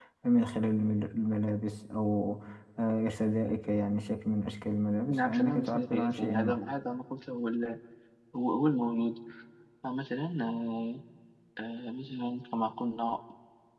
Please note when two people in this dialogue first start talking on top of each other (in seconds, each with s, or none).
5.1 s